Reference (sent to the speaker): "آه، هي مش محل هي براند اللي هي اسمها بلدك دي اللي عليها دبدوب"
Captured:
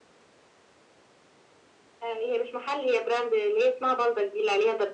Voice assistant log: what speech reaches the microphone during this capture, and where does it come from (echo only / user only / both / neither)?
echo only